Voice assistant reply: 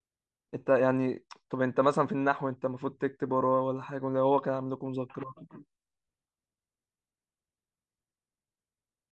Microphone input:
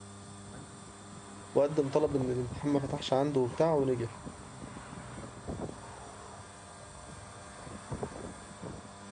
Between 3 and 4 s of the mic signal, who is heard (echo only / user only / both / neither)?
user only